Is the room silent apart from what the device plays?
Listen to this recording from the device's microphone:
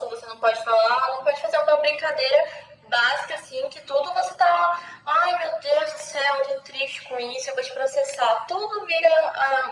Yes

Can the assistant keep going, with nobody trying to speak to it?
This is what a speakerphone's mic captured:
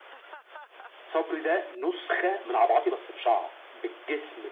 Yes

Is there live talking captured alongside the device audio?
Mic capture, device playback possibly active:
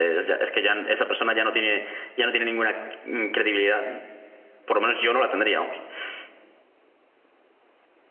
Yes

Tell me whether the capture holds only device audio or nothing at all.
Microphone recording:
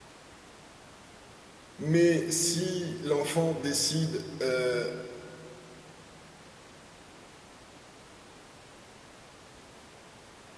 No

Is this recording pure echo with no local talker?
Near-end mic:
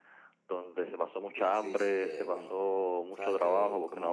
No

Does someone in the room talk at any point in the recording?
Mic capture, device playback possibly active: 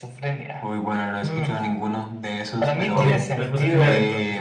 Yes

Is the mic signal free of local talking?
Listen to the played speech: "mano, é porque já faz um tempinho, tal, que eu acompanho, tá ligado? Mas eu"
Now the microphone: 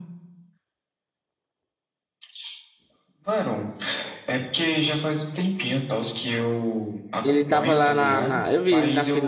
No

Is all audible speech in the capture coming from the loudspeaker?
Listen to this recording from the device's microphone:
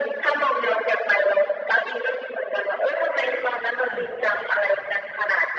No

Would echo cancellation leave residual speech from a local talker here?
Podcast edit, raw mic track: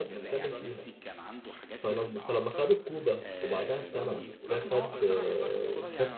Yes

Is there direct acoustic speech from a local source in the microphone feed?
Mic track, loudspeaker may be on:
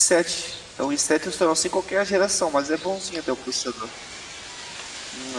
Yes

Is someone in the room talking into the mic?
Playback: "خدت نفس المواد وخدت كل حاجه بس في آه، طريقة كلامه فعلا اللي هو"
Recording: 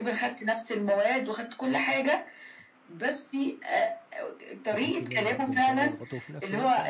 Yes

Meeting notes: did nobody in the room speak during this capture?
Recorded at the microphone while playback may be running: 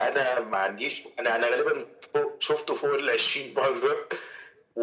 Yes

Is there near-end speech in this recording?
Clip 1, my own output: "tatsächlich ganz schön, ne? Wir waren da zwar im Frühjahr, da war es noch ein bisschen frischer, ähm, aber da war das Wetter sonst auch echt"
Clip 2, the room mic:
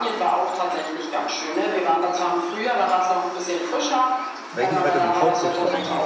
Yes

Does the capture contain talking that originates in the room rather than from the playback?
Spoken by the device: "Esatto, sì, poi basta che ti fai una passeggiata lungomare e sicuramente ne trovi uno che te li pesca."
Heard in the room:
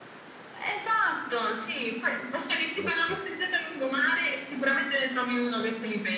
Yes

